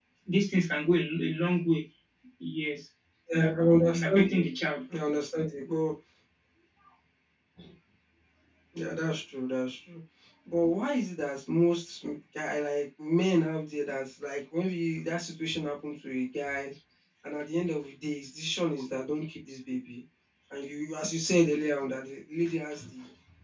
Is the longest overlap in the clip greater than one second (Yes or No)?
No